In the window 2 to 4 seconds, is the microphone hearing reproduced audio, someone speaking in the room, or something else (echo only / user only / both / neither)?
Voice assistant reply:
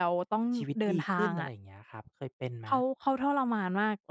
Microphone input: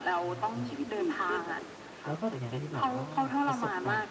both